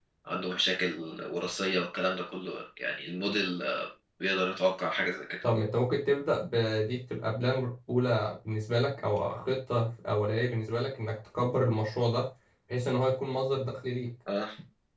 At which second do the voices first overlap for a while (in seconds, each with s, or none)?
none